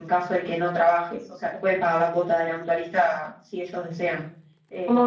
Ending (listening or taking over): listening